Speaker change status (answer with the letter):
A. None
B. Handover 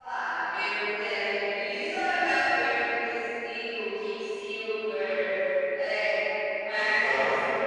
B